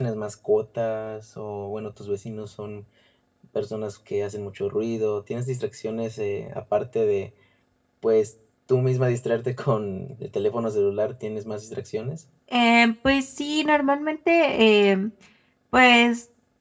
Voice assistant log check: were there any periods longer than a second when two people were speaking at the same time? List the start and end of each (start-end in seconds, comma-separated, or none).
none